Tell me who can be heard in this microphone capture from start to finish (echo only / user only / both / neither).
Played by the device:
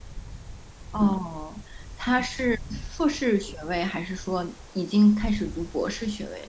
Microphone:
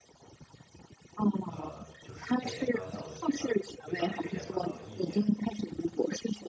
both